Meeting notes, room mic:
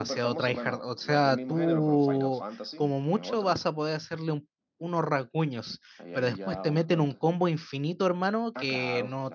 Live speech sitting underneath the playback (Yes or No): No